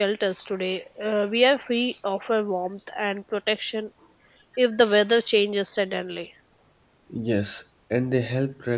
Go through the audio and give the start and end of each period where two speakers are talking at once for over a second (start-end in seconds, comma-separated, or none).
none